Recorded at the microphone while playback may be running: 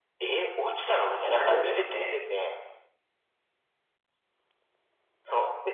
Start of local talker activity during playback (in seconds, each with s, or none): 0.7 s